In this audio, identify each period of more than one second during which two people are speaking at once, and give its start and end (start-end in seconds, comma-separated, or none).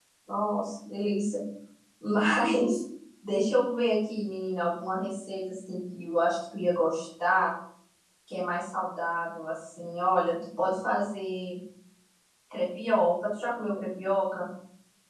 none